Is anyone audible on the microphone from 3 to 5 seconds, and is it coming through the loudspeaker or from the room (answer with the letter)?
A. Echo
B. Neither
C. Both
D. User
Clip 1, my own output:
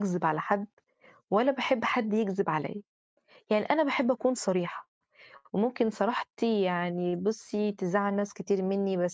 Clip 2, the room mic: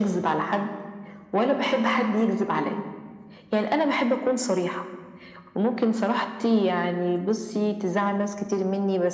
A